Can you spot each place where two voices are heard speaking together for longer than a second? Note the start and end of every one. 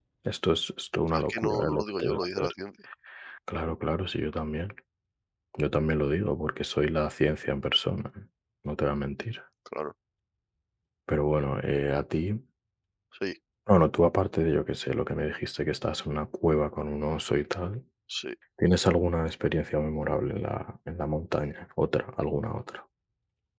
1.1-2.5

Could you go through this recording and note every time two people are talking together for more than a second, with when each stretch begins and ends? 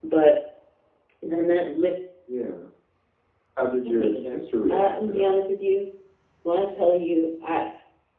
3.8-5.4

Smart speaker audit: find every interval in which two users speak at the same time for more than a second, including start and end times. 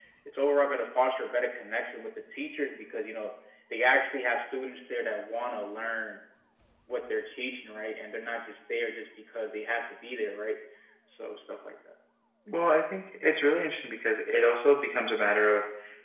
none

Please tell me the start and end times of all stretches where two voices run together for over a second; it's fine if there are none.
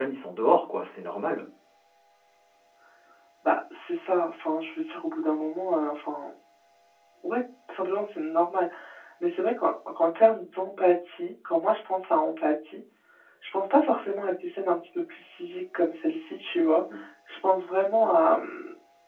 none

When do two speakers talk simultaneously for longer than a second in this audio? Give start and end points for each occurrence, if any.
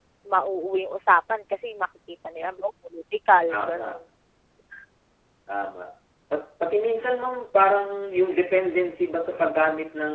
none

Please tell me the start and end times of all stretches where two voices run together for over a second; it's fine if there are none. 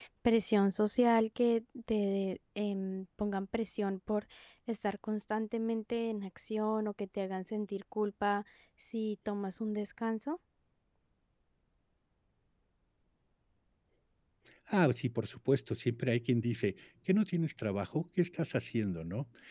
none

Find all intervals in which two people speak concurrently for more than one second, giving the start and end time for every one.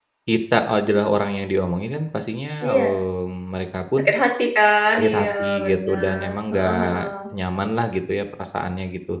4.9-7.1

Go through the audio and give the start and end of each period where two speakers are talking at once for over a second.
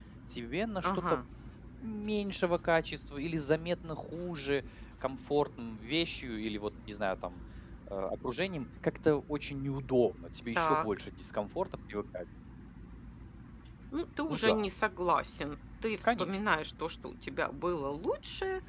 none

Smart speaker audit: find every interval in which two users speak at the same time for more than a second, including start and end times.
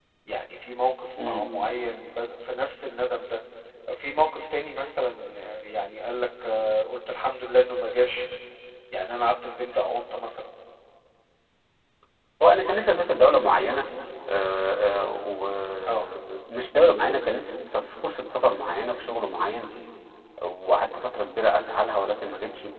none

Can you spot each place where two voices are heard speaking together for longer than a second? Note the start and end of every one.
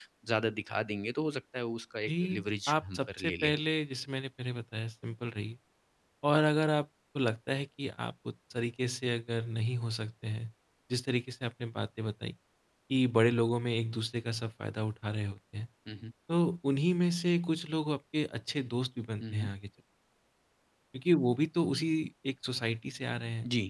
2.1-3.5

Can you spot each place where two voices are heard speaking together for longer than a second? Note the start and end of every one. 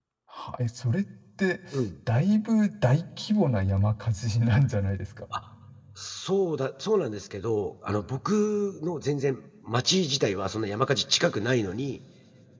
none

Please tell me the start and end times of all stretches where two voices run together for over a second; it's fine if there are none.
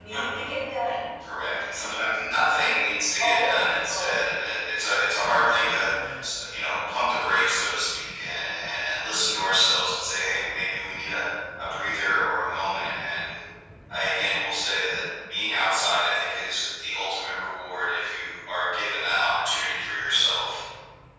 3.2-4.4

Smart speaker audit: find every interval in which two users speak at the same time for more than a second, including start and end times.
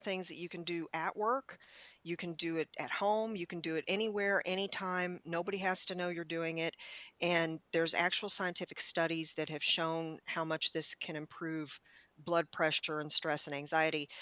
none

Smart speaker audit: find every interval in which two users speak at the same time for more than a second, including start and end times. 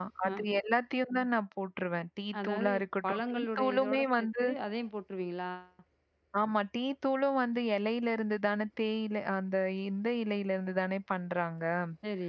2.4-4.4

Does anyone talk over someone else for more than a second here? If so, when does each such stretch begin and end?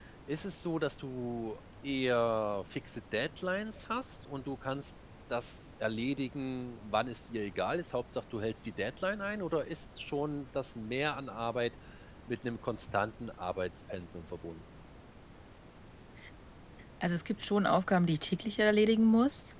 none

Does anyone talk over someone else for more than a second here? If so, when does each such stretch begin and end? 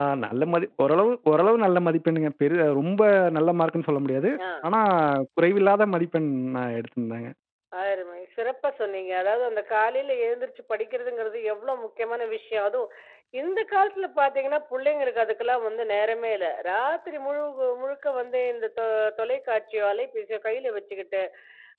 none

